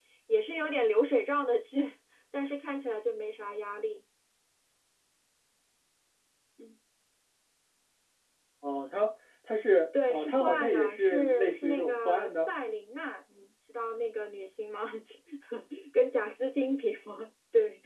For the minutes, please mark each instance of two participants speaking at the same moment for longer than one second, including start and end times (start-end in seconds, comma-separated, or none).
10.1-12.5